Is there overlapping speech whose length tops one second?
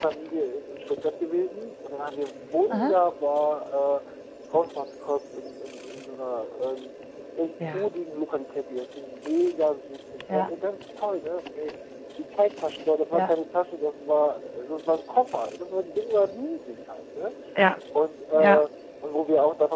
No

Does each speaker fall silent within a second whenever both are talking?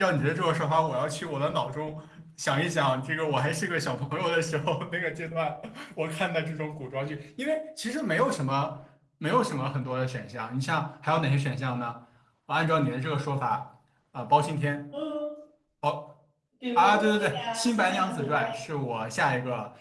No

